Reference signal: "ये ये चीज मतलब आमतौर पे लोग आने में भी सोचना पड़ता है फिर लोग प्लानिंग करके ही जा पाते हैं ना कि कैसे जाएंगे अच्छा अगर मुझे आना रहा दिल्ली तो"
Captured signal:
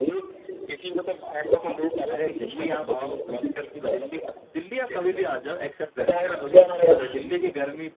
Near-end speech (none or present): present